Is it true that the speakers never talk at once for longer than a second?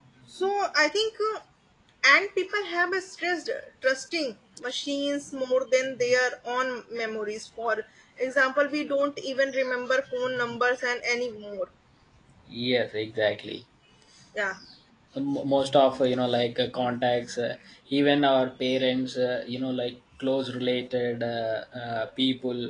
Yes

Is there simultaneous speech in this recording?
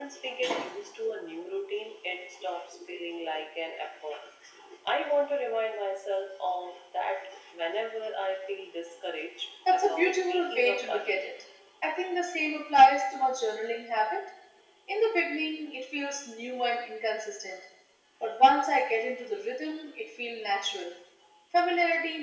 Yes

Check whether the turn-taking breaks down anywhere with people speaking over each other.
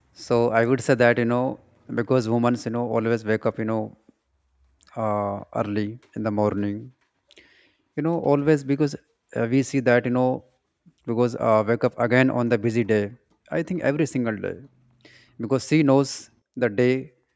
No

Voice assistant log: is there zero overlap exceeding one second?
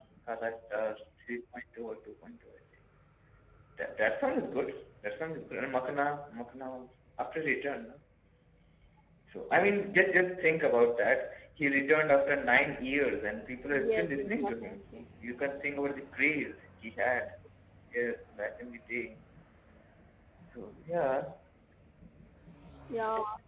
No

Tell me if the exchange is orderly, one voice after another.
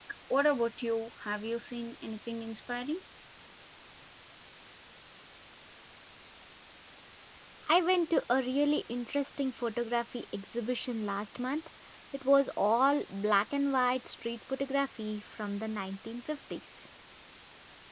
Yes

